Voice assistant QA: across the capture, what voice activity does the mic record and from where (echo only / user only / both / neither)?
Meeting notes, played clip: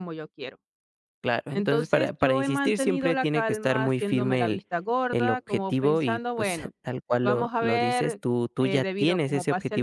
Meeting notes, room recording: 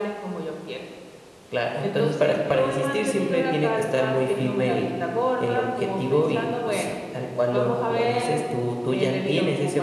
echo only